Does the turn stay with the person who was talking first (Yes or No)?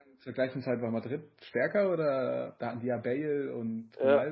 No